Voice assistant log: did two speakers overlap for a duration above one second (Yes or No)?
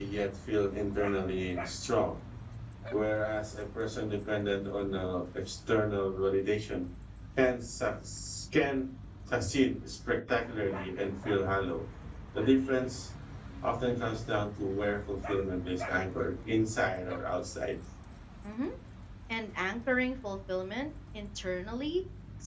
No